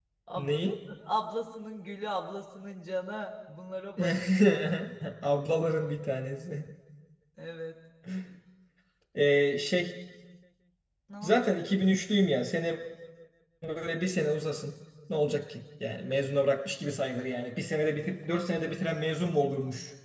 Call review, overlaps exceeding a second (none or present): none